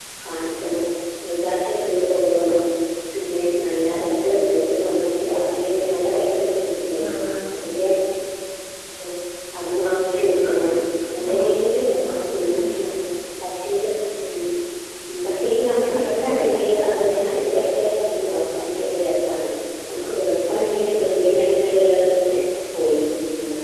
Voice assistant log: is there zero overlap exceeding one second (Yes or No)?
No